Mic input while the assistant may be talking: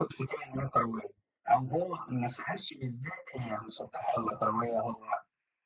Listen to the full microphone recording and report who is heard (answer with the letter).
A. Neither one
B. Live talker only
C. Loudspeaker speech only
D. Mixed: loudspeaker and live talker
C